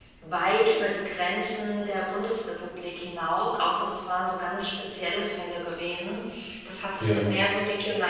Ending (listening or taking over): listening